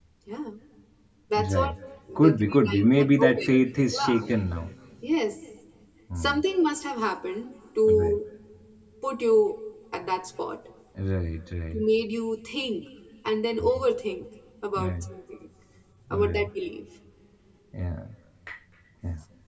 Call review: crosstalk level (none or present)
present